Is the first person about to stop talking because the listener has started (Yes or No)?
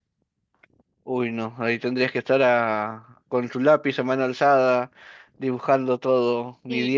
Yes